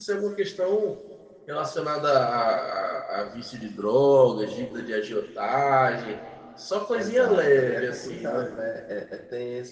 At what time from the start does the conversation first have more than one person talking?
6.9 s

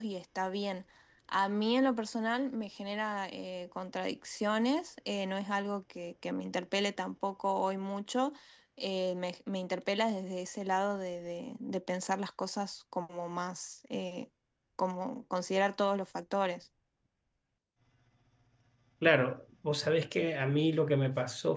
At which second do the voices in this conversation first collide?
none

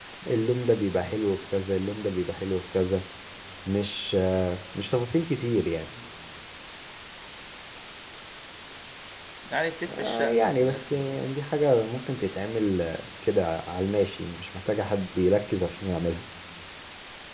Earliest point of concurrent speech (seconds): 9.9 s

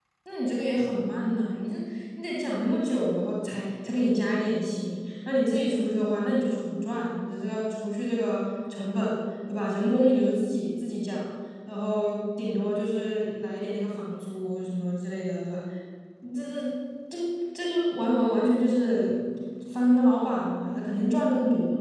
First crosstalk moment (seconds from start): none

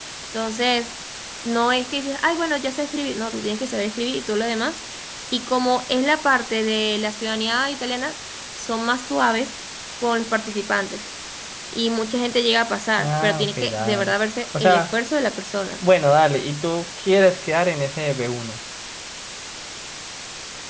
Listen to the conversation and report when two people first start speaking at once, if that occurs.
13.0 s

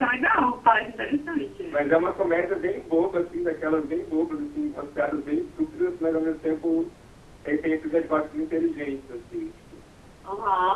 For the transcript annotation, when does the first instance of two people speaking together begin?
none

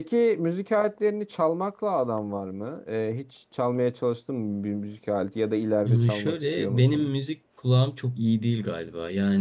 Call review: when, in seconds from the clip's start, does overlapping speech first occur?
5.8 s

